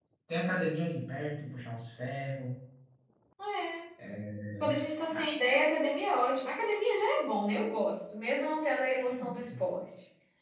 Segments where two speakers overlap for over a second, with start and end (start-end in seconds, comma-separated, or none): none